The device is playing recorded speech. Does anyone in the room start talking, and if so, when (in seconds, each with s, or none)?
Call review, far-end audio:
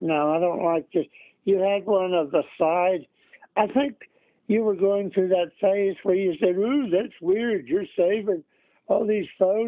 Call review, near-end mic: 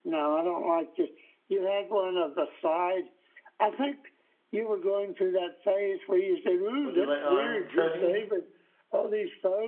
6.8 s